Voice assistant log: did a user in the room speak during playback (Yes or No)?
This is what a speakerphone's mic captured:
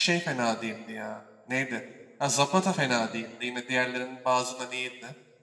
Yes